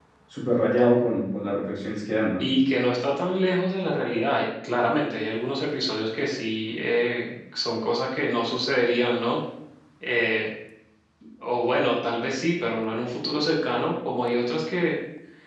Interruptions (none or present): none